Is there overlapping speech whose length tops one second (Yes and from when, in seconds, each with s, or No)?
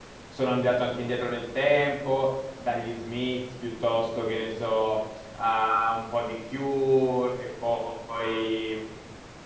No